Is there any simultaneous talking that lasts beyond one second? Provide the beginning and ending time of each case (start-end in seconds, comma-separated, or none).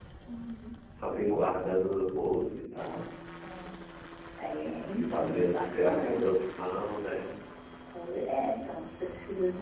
4.9-6.2